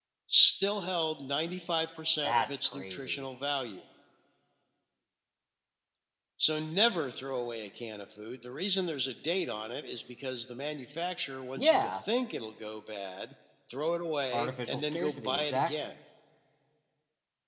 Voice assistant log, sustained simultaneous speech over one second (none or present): present